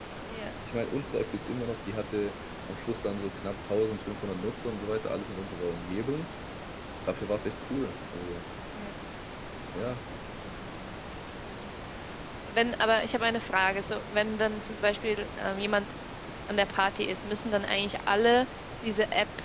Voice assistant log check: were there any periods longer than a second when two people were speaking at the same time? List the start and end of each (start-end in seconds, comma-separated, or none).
none